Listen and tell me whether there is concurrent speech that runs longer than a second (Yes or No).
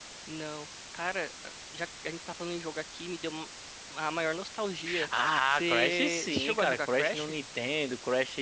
Yes